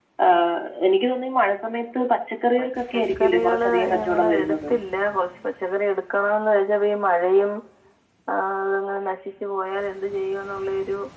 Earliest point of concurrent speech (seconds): 3 s

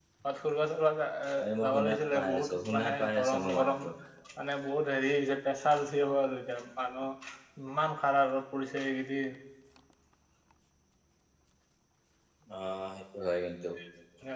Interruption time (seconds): 1 s

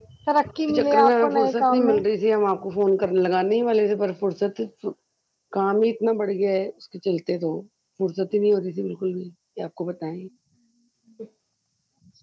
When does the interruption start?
1 s

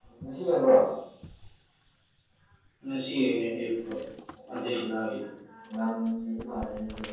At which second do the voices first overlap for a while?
none

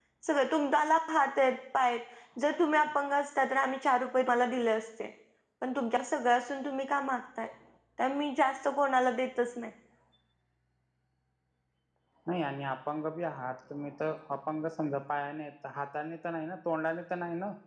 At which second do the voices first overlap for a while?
none

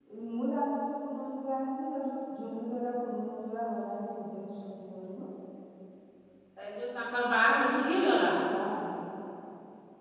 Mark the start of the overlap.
none

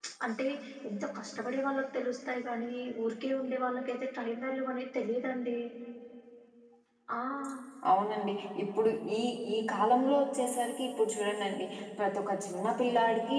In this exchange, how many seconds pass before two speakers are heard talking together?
none

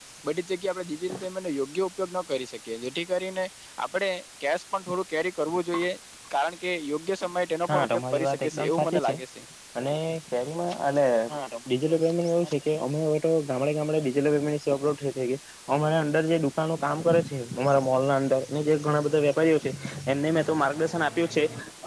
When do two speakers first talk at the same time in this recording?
8 s

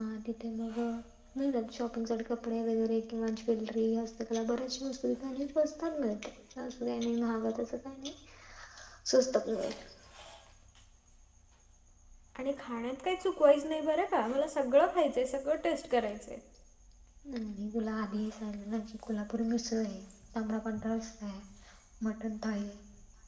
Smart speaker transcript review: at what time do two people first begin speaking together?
none

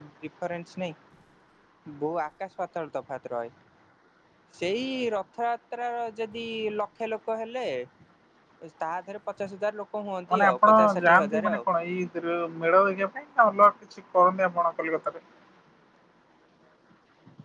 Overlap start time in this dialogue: 10 s

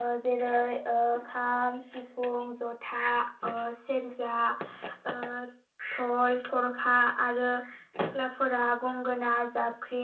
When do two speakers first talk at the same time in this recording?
none

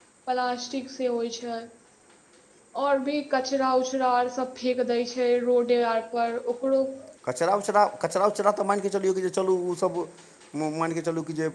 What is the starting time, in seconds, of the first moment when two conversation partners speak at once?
none

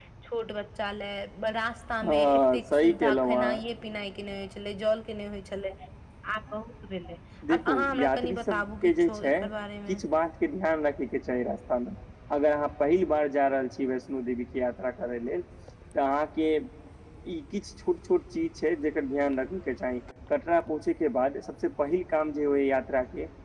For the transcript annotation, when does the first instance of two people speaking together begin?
2 s

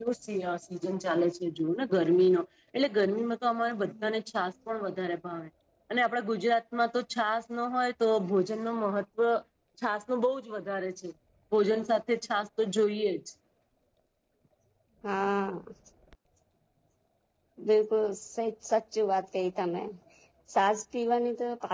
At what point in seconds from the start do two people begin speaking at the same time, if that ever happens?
none

